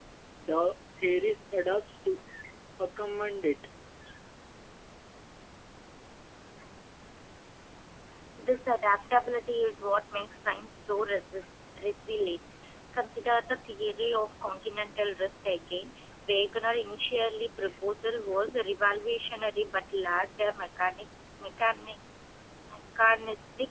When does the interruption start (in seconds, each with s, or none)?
none